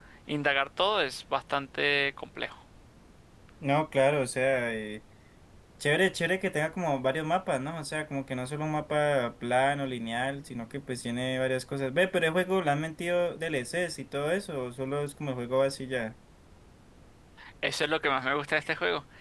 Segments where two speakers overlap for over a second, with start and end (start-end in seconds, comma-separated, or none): none